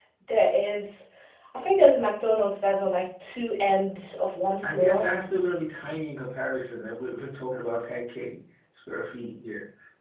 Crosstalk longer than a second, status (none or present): none